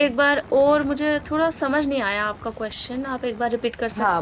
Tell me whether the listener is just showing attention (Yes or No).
No